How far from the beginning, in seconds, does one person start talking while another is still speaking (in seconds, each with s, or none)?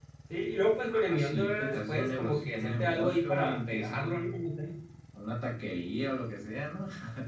0.9 s